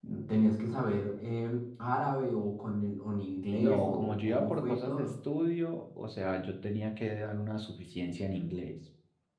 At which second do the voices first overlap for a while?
3.5 s

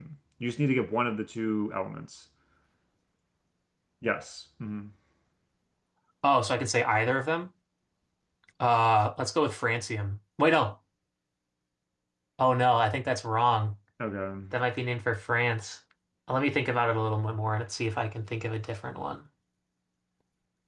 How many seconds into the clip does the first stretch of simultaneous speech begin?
none

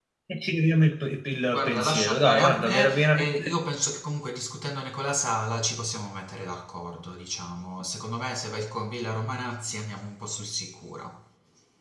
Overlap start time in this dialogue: 1.5 s

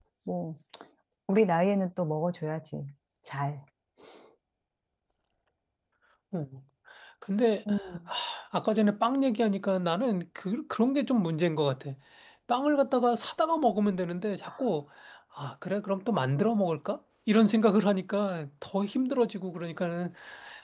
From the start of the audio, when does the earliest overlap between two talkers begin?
none

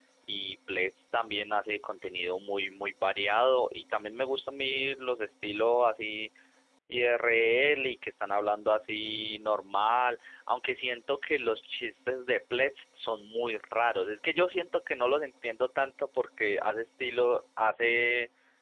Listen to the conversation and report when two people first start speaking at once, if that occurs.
none

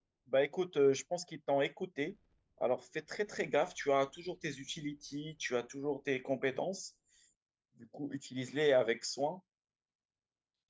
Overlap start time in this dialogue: none

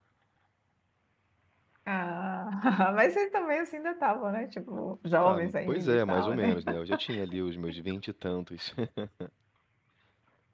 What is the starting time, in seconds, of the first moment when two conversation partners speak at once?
5.2 s

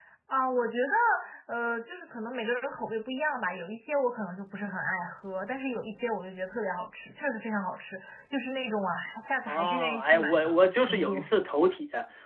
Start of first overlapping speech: 9.5 s

